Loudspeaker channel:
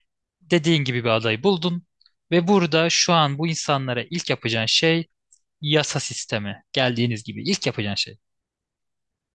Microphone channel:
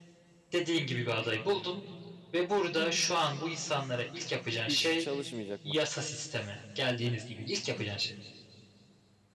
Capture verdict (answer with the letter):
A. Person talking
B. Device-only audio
A